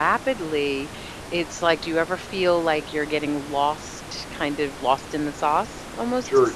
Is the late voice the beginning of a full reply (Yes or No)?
Yes